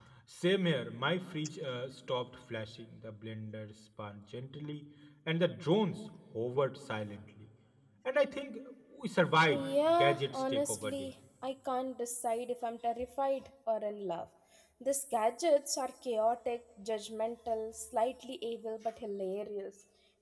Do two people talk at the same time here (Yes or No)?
Yes